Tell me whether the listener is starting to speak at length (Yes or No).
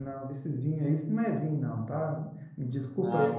No